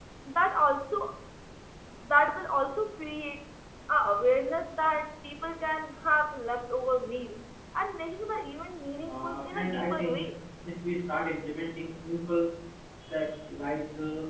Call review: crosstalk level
present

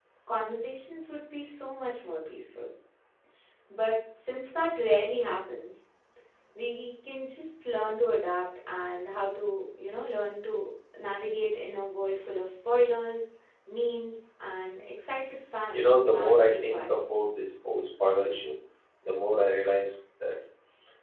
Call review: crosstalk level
present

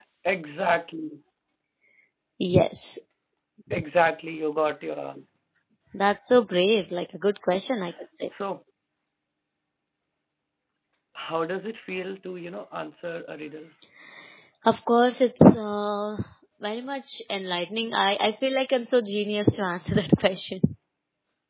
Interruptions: none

